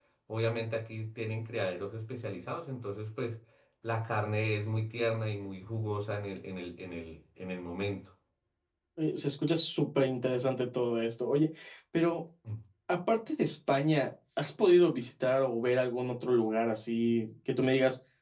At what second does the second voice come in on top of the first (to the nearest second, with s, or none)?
none